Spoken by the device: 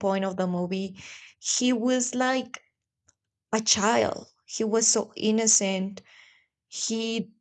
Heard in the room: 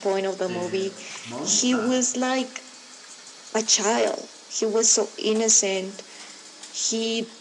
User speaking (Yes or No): Yes